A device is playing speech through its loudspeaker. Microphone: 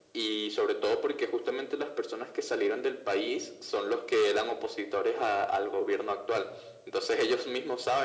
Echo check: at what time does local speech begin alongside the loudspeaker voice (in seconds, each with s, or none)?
none